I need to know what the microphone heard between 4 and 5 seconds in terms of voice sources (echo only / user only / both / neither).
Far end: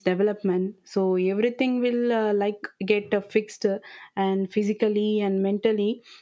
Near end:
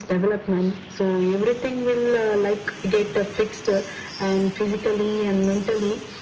echo only